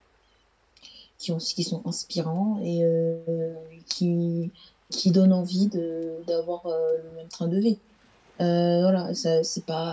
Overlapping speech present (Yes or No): No